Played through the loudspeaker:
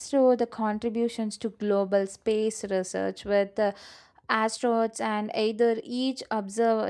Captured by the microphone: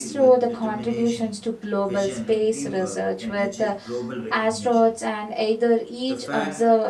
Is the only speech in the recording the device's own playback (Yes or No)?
No